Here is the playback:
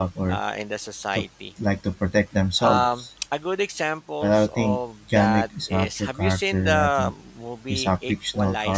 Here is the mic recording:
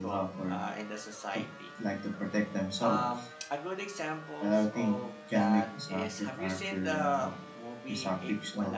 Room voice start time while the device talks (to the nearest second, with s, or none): none